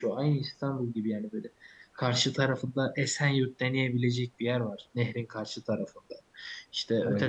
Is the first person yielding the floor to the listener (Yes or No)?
No